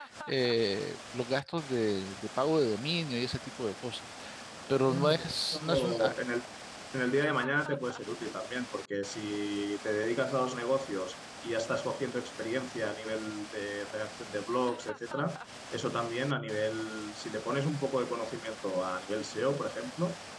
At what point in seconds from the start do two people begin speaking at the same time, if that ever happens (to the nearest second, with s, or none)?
5 s